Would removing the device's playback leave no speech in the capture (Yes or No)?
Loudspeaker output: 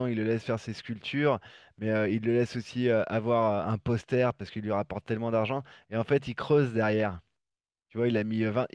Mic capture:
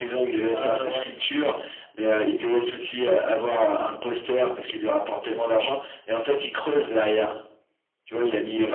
No